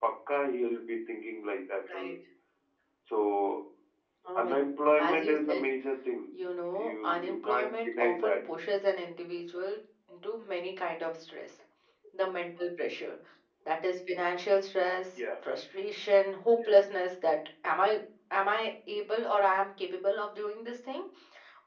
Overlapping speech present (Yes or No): Yes